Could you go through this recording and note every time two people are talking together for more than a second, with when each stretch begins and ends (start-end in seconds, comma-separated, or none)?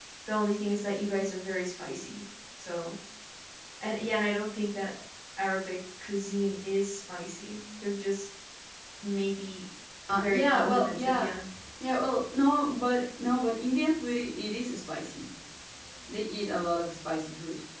10.1-11.4